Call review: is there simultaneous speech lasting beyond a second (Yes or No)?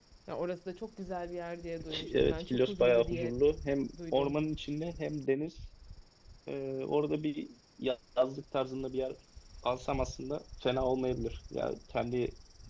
Yes